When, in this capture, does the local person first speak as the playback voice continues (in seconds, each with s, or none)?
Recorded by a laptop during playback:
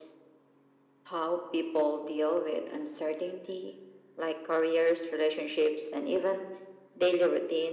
none